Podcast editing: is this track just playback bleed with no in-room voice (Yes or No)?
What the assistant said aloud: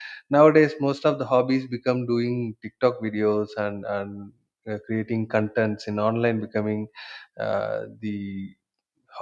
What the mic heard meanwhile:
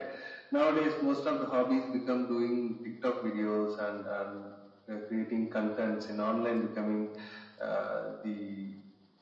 Yes